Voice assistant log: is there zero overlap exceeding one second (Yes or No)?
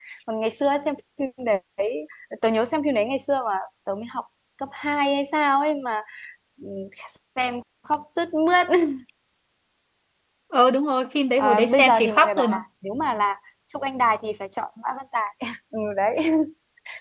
No